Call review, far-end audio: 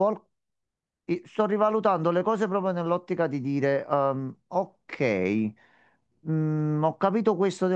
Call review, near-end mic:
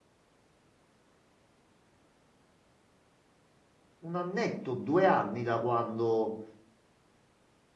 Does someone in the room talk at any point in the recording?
Yes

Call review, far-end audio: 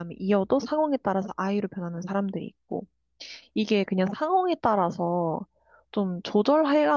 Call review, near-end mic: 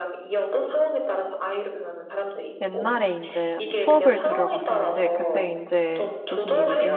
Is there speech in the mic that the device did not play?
Yes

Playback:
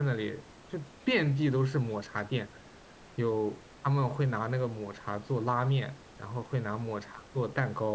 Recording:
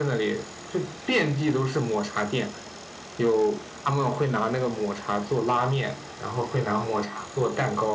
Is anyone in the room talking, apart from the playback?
No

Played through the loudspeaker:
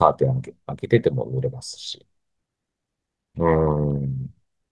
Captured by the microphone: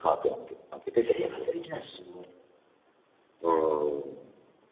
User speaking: Yes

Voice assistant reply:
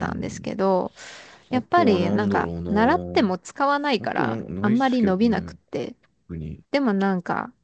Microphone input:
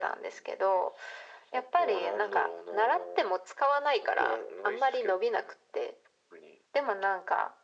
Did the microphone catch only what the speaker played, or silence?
Yes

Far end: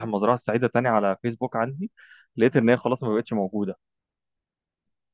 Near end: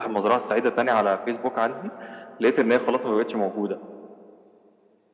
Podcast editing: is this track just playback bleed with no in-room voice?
Yes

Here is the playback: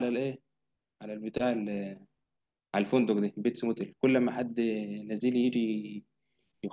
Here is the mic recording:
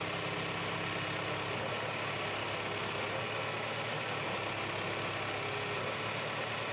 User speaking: No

